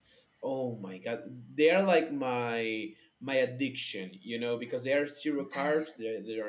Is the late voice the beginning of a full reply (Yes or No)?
No